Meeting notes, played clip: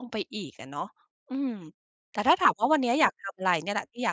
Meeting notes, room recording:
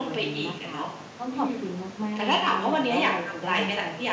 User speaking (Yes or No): Yes